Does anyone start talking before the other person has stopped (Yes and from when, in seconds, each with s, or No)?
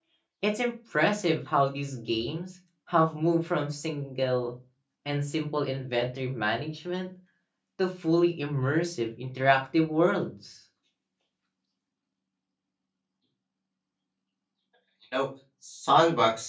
No